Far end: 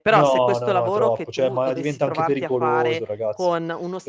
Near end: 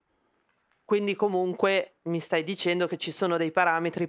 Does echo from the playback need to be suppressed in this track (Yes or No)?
No